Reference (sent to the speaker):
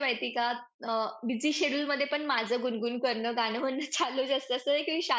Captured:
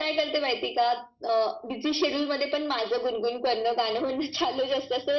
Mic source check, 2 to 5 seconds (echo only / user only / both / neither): echo only